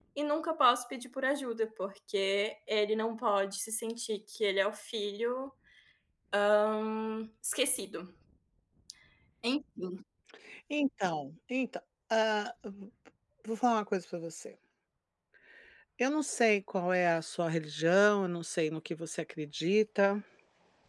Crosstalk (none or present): none